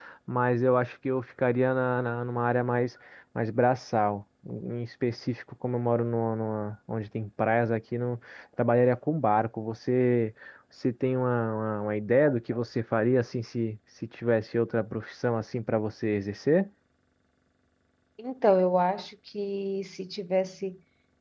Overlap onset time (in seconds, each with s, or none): none